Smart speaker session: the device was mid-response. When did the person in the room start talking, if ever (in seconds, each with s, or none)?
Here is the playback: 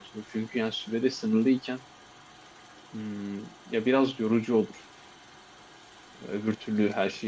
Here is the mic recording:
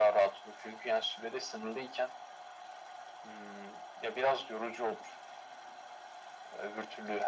none